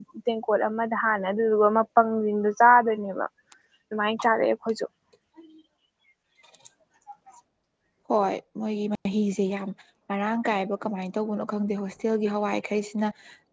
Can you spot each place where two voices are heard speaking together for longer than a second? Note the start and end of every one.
none

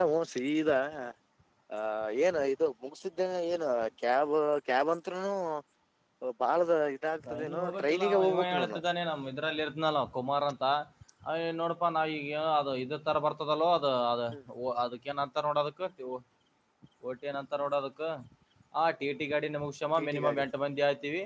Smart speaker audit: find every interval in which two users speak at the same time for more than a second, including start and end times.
7.3-8.8

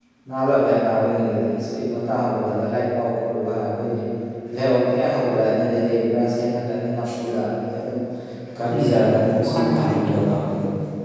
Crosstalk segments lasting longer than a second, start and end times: 8.7-10.2

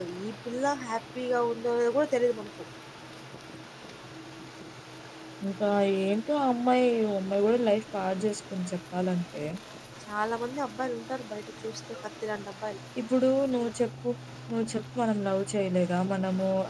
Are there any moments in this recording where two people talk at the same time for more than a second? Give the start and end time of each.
none

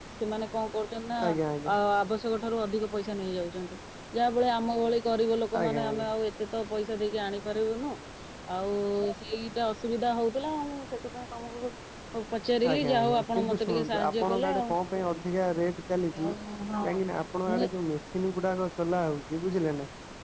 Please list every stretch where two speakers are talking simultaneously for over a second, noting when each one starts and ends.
12.7-14.7

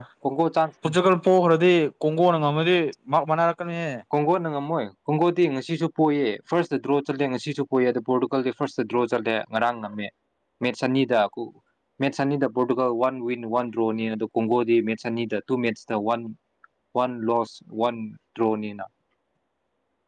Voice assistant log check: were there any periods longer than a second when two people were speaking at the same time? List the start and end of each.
none

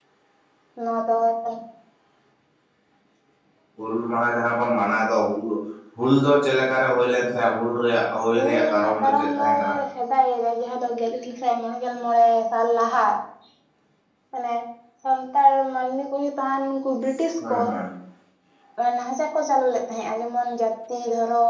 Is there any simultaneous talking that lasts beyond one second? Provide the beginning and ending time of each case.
8.4-9.7

